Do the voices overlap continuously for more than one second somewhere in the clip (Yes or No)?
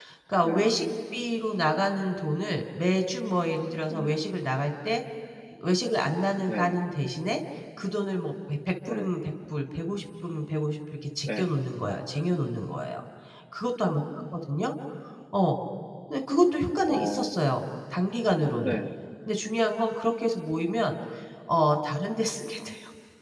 No